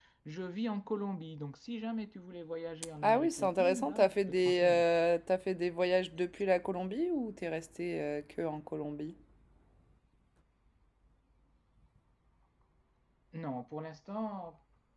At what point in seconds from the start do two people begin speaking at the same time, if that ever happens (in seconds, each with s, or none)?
2.8 s